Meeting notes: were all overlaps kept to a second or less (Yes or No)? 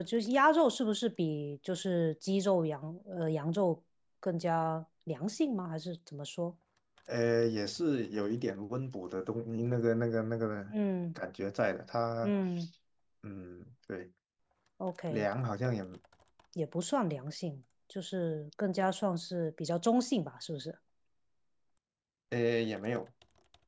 Yes